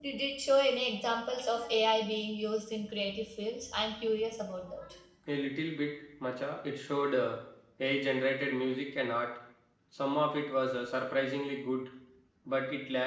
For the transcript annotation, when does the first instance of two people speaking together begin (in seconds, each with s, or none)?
none